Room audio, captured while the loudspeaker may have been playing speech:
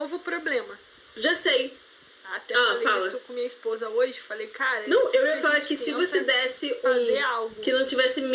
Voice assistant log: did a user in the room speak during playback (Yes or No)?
No